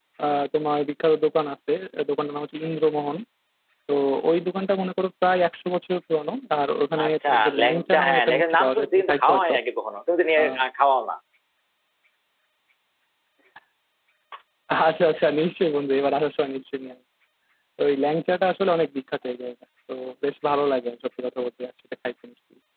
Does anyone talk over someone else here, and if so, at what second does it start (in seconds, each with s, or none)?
7.0 s